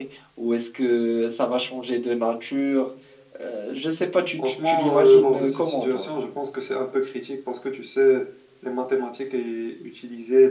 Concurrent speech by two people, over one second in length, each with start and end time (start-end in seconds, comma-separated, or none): 4.4-6.1